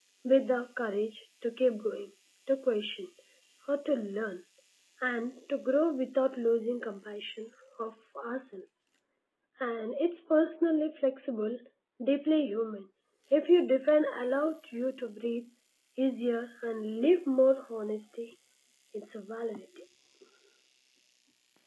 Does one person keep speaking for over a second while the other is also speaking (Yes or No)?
No